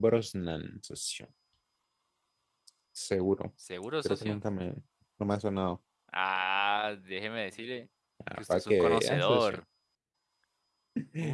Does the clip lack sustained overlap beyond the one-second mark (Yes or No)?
No